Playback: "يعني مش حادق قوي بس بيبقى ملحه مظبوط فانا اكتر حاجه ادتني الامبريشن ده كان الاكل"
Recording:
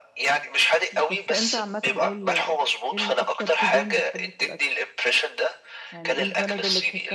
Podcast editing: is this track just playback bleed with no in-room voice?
No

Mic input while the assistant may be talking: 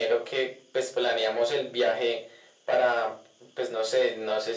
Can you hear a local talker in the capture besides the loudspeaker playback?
No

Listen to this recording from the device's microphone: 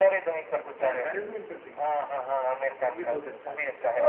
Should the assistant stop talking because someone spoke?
Yes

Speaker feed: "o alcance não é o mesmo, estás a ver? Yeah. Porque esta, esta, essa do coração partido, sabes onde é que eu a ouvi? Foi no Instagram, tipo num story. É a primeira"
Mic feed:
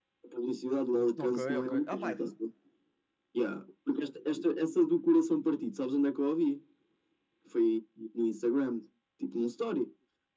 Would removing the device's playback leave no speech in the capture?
No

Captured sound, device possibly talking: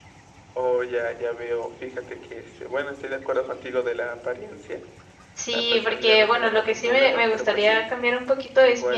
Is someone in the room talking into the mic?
Yes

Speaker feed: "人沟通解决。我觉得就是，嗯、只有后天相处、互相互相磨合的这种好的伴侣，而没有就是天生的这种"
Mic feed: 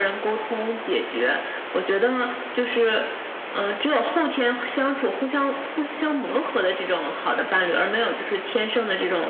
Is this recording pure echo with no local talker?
Yes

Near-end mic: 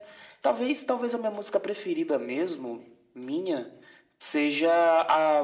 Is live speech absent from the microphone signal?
Yes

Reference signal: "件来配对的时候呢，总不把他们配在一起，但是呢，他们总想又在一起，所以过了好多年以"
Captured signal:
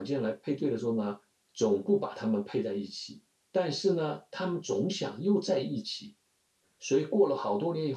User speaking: No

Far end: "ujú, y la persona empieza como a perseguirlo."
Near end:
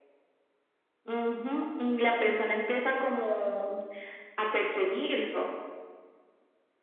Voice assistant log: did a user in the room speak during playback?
No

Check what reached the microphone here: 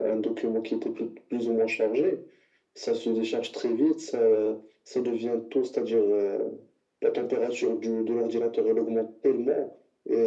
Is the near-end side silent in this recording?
Yes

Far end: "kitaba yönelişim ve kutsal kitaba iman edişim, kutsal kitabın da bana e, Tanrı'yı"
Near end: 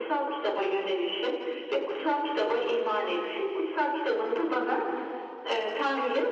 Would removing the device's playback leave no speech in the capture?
Yes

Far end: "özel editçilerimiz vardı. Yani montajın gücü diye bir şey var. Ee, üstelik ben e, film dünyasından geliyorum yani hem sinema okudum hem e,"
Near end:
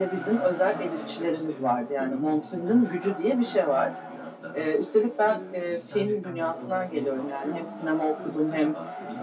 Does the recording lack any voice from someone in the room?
No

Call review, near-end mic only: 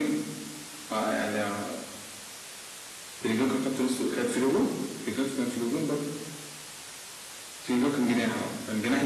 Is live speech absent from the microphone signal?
Yes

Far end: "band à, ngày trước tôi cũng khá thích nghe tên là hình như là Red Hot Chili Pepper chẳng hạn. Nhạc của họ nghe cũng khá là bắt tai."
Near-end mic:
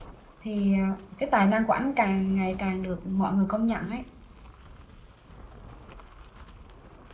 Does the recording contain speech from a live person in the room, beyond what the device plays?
Yes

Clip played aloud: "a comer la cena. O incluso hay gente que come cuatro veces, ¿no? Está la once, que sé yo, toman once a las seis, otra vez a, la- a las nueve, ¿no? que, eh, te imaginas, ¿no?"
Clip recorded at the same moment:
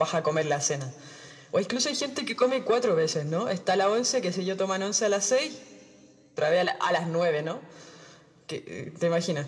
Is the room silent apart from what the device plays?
Yes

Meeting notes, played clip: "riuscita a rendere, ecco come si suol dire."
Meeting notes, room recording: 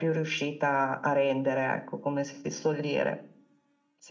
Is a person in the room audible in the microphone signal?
No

